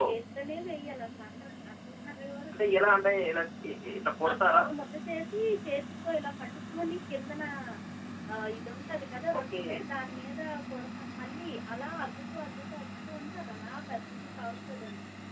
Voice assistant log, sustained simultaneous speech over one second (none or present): none